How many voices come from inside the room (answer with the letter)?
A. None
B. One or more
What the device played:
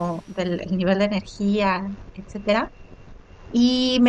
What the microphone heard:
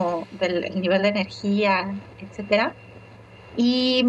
A